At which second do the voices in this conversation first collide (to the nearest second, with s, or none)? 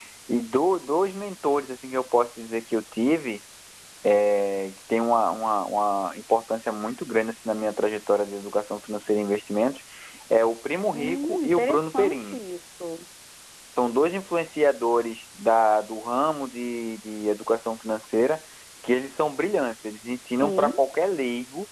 11 s